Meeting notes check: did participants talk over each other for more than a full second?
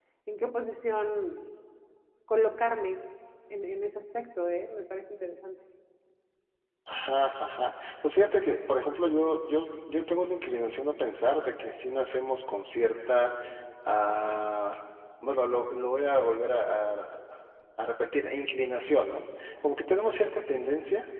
No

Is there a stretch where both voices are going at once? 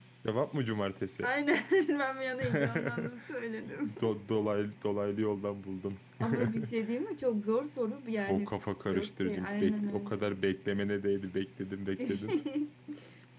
Yes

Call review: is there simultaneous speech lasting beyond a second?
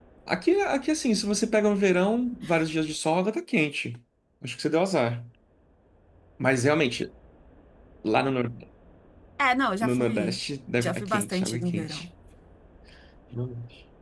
Yes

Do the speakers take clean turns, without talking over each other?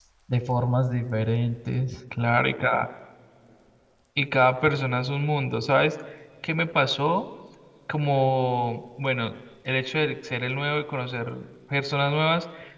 Yes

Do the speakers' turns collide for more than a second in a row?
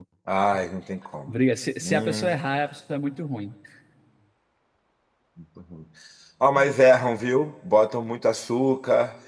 No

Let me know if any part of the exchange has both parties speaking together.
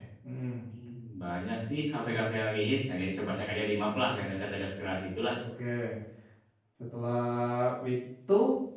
No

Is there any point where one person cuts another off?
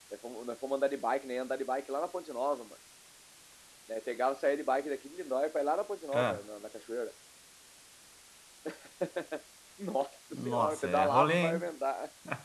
Yes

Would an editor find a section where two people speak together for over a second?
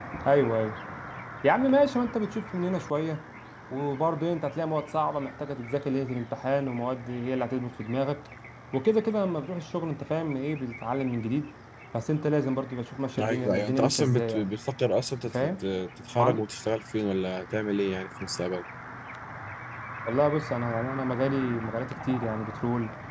Yes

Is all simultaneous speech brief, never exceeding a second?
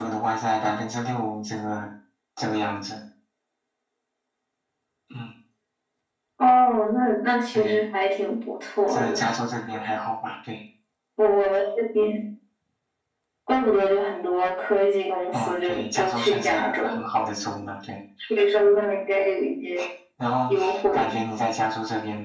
No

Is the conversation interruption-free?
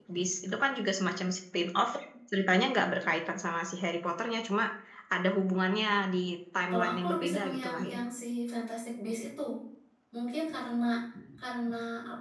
No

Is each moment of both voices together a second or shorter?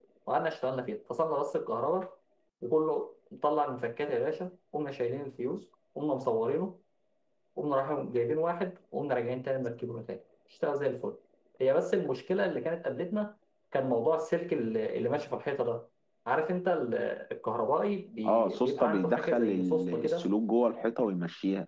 No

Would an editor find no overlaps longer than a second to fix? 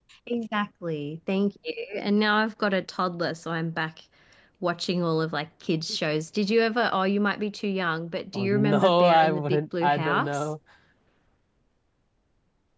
No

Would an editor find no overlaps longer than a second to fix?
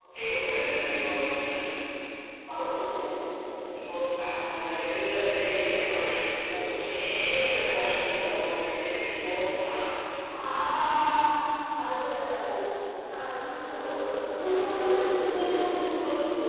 No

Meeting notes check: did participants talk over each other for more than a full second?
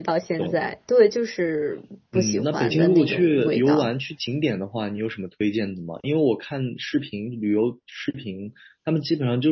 Yes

